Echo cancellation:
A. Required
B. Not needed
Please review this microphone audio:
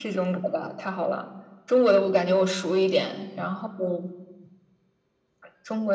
A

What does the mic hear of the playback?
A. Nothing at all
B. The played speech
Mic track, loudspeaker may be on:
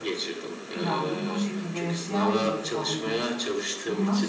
B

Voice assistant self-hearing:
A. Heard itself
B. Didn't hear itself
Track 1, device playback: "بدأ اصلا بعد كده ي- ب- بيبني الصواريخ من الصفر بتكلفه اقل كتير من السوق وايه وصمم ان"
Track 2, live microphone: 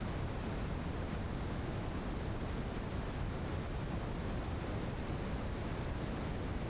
B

